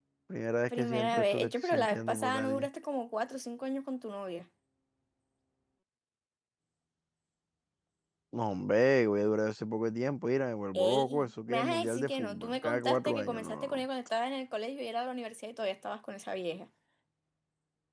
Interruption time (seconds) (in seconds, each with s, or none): 0.7 s